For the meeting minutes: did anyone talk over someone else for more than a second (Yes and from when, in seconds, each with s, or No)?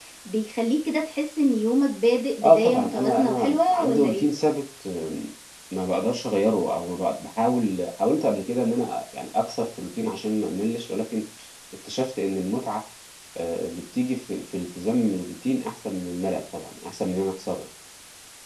Yes, from 2.4 s